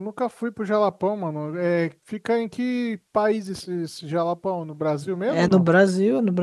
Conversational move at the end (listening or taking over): taking over